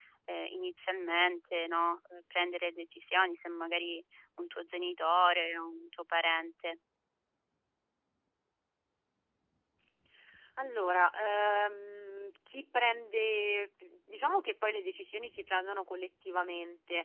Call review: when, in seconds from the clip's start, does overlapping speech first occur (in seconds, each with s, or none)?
none